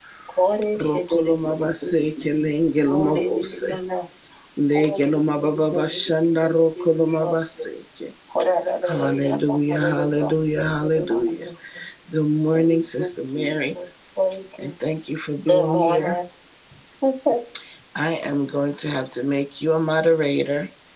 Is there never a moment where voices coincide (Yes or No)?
No